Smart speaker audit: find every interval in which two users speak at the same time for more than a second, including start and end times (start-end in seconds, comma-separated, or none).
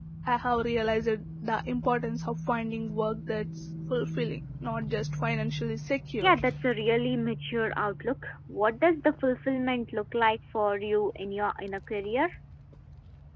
none